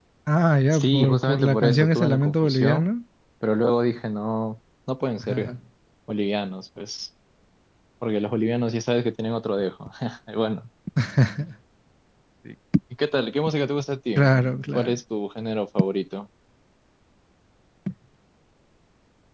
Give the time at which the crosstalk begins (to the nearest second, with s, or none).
1 s